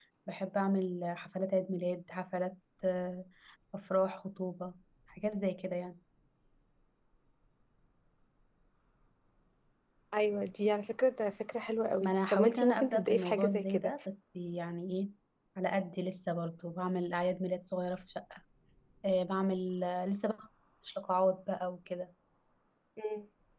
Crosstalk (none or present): present